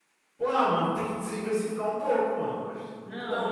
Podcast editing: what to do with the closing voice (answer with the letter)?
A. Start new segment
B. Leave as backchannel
A